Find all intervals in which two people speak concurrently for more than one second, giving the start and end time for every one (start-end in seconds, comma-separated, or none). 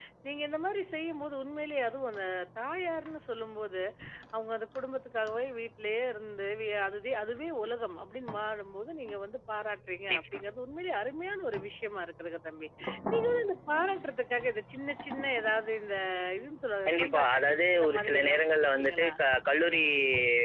16.9-19.1